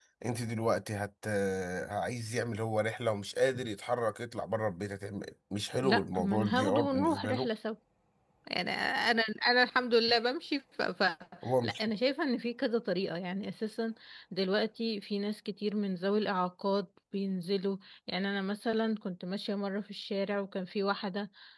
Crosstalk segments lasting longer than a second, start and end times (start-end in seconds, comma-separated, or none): 5.8-7.5